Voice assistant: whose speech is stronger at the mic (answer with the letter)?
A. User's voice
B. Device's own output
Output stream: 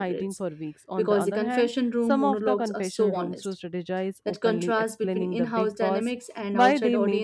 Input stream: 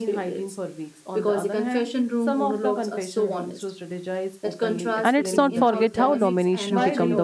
A